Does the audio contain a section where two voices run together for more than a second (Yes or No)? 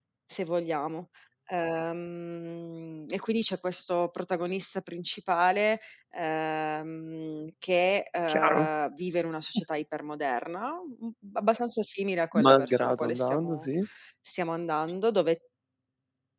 Yes